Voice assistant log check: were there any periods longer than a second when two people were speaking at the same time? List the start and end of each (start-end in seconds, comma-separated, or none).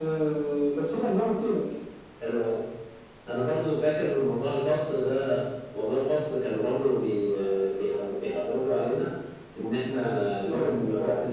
none